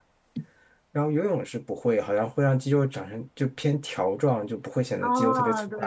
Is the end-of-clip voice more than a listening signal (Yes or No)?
Yes